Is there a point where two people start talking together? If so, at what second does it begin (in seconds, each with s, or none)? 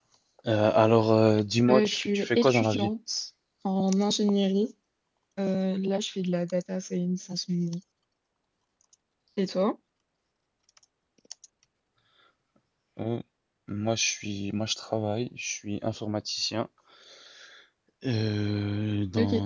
1.7 s